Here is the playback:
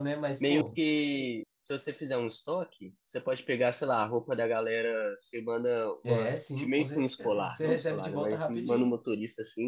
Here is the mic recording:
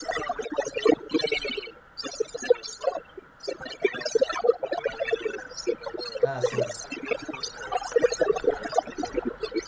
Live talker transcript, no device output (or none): Ah, sim.